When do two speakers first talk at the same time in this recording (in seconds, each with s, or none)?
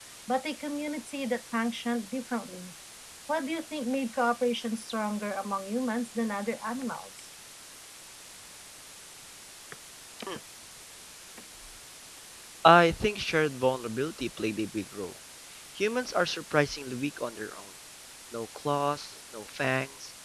none